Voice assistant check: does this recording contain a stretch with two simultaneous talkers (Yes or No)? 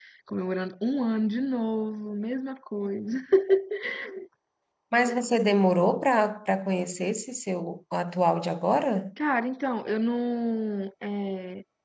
No